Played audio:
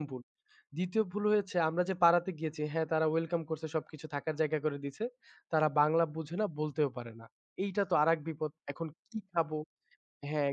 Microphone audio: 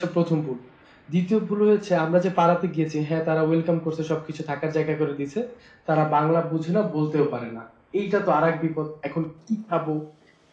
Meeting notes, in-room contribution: none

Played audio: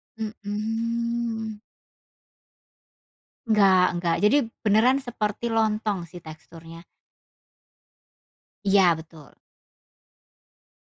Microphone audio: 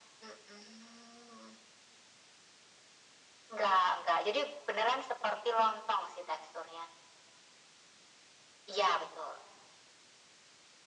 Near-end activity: none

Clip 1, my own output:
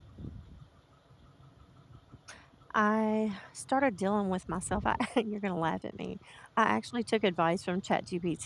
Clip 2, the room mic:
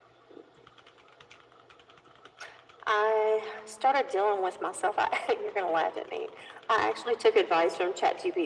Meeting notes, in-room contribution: none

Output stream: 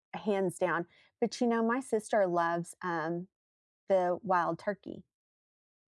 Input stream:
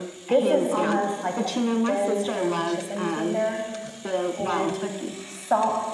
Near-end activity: present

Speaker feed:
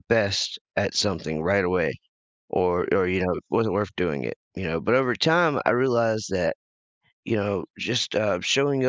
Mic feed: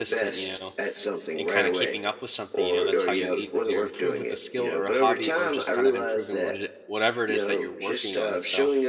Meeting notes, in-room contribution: present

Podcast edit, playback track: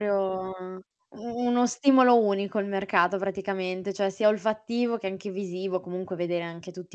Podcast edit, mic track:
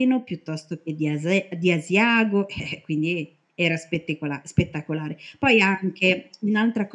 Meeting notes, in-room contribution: present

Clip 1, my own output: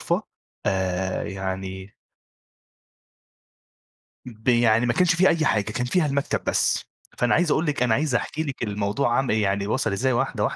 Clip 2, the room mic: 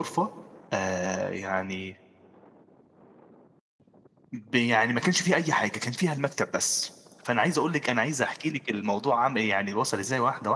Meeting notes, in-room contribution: none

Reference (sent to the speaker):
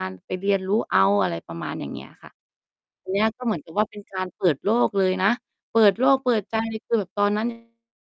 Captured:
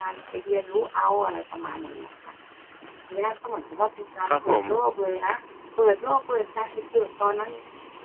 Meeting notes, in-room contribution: present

